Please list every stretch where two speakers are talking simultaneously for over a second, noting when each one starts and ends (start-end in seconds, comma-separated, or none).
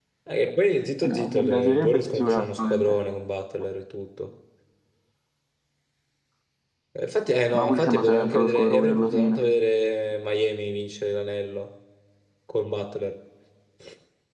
1.0-3.0, 7.5-9.4